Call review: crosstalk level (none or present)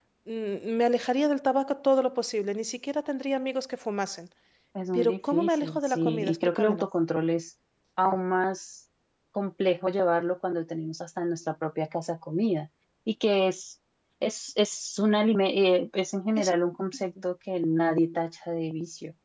present